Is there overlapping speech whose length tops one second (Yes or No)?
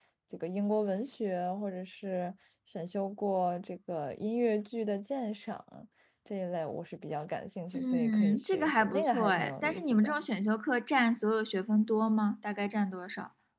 Yes